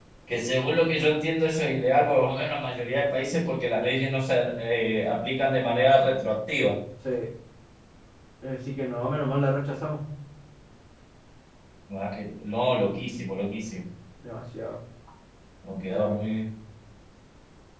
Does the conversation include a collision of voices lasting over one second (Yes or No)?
No